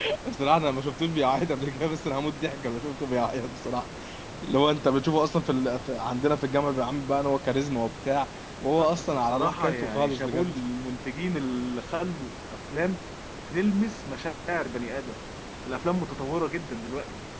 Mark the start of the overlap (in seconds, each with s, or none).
8.8 s